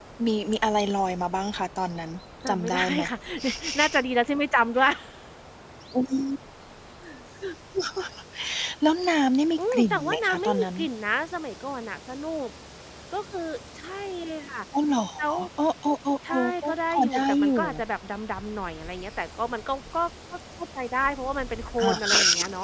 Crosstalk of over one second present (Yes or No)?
Yes